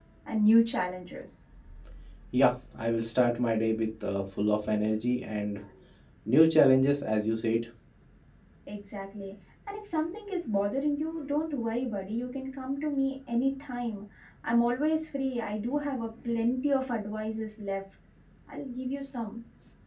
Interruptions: none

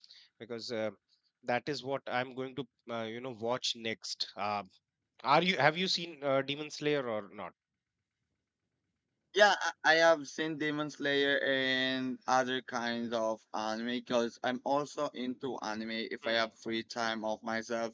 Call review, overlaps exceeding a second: none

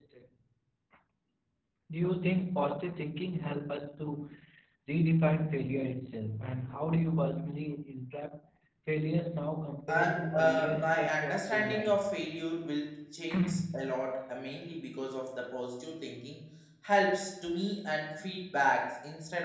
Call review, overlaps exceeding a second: present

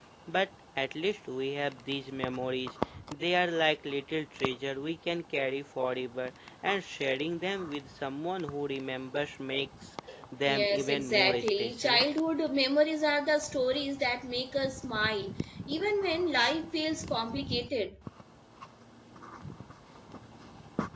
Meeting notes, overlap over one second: present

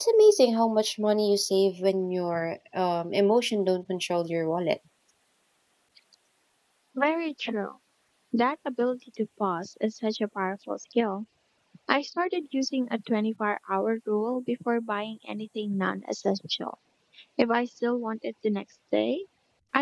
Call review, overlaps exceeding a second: none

